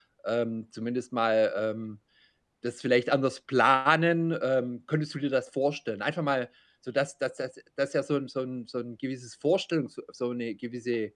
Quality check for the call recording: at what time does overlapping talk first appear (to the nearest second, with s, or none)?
none